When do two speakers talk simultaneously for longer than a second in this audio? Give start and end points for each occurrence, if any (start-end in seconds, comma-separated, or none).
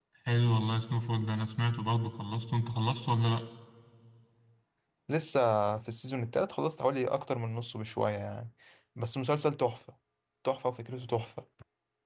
none